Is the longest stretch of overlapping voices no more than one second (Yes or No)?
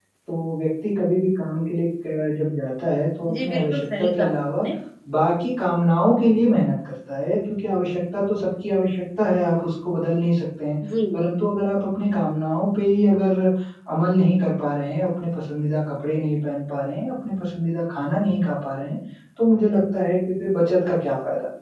No